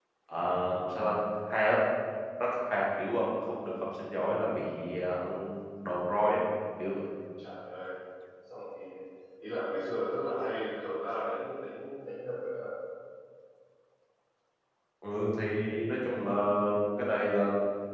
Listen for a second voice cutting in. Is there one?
No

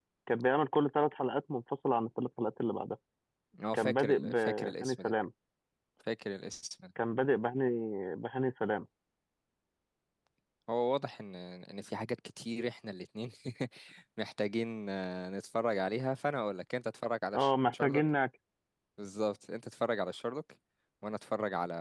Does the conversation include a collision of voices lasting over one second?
Yes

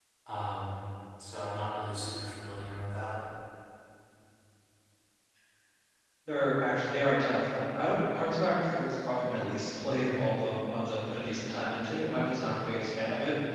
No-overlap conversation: Yes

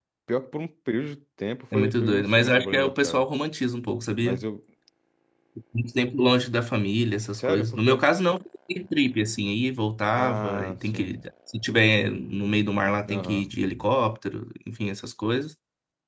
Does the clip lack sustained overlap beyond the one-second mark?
No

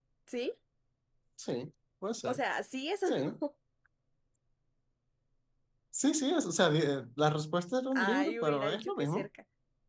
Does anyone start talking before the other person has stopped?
Yes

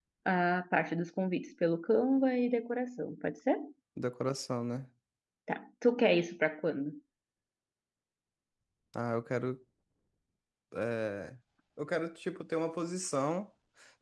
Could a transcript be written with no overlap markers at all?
Yes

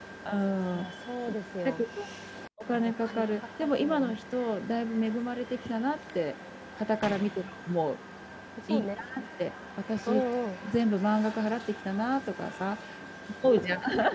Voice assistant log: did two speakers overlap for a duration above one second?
Yes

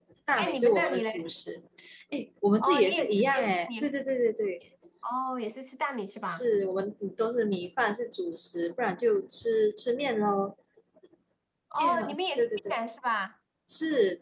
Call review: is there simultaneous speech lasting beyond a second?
Yes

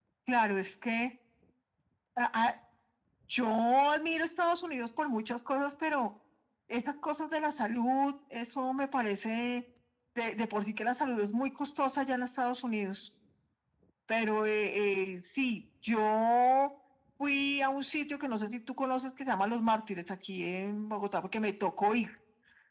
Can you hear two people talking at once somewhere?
No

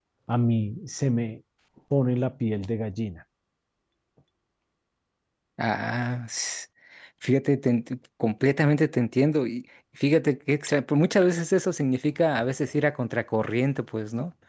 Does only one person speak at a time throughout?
Yes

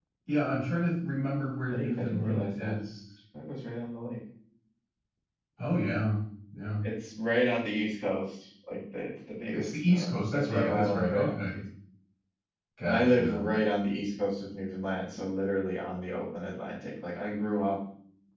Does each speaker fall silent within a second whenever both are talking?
No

